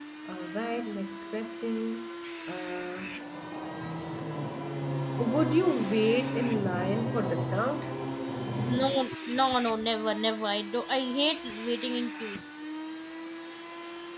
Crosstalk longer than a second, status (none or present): none